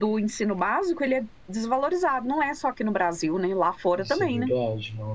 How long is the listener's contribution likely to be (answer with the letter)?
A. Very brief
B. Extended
B